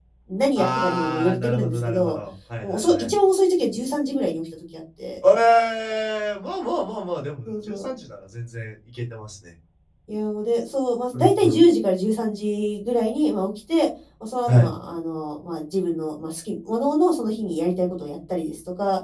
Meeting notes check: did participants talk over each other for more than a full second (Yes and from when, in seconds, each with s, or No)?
Yes, from 0.6 s